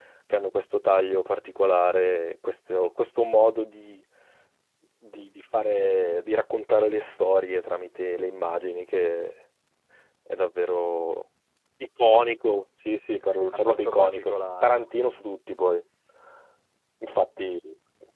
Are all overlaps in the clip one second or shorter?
No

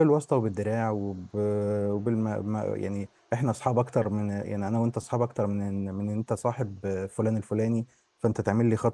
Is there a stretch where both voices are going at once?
No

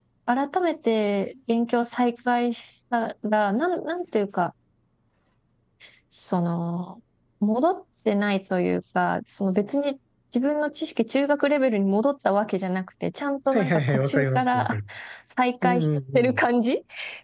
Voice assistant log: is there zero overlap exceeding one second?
No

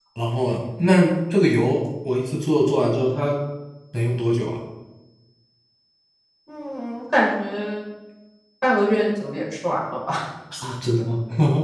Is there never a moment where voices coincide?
Yes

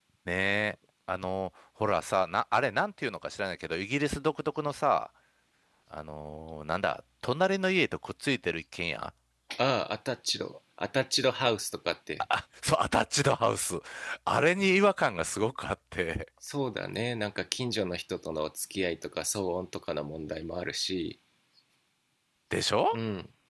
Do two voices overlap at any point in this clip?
No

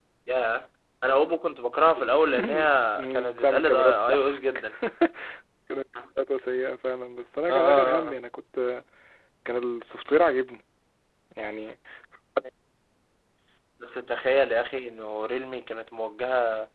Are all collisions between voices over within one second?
No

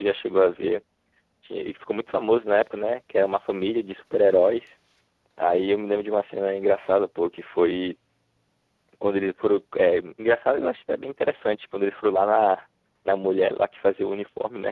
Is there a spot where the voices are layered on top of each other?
No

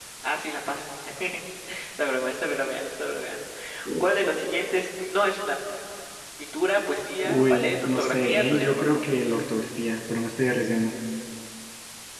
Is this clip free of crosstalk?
No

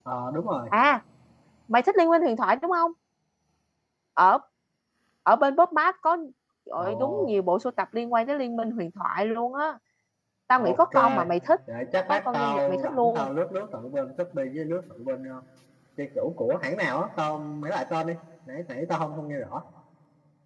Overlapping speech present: Yes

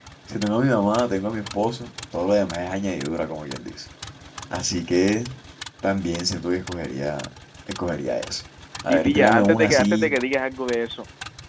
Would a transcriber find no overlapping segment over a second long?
No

